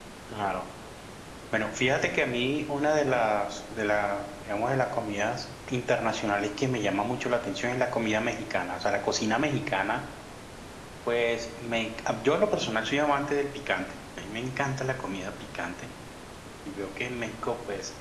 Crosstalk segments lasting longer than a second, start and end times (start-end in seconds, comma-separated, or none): none